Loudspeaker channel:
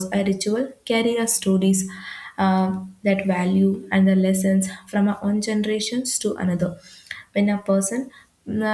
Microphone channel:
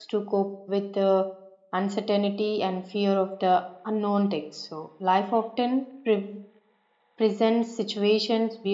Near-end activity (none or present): present